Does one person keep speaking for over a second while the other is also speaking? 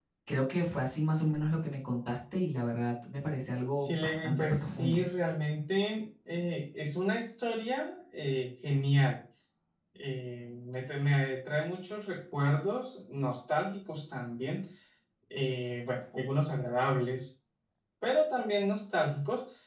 Yes, from 3.8 s

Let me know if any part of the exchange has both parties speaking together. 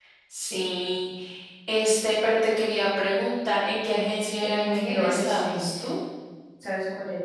Yes, from 4.4 s

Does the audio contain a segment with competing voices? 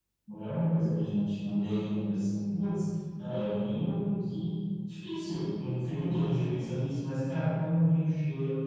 No

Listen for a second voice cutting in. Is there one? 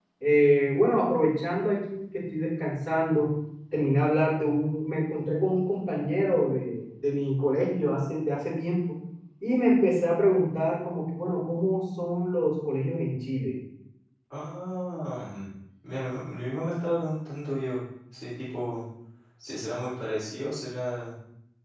No

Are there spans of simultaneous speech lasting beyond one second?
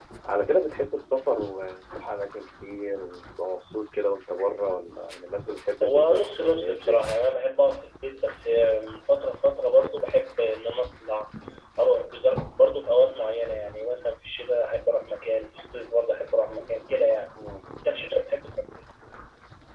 Yes, from 5.8 s

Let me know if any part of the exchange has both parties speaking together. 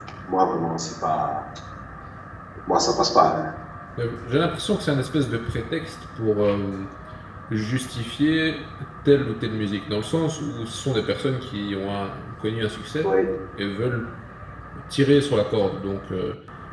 No

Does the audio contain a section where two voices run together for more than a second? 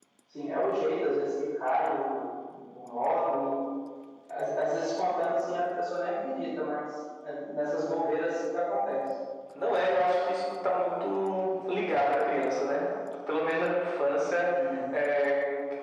No

